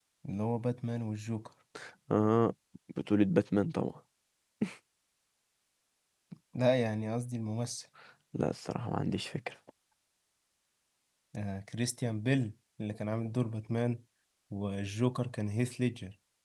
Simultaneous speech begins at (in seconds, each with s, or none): none